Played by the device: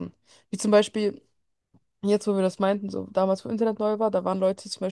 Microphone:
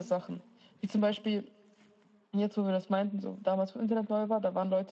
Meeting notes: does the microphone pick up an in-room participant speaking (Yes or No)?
No